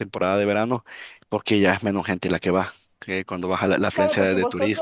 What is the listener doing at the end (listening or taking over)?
taking over